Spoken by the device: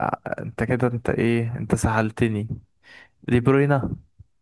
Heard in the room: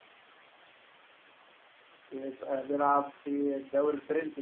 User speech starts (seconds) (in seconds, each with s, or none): 2.1 s